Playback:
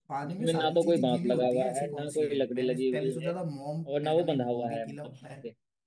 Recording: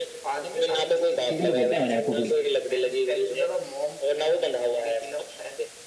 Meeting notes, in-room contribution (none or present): present